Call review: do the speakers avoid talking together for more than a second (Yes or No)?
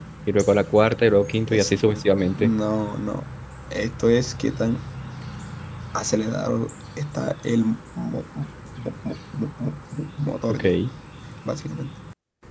Yes